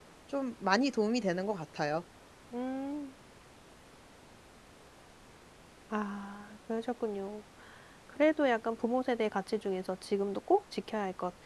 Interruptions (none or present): none